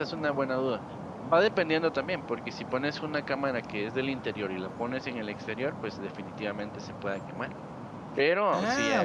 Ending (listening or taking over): taking over